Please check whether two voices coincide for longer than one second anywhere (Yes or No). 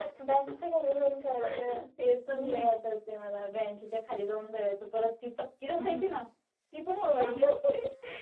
No